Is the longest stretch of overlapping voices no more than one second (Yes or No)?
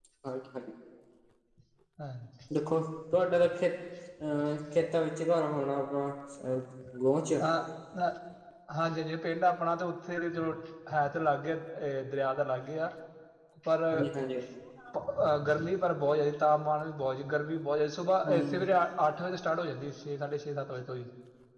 Yes